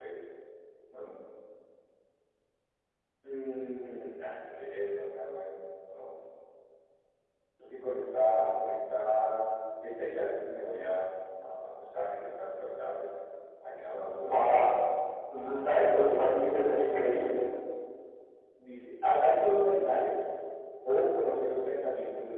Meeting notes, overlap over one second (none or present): none